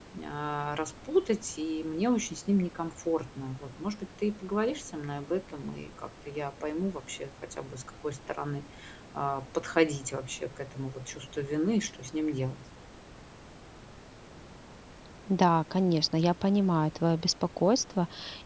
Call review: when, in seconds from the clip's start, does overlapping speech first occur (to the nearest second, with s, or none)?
none